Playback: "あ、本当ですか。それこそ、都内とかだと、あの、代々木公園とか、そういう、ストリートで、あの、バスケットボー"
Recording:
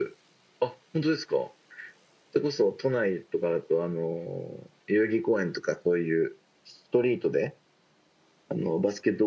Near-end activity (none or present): none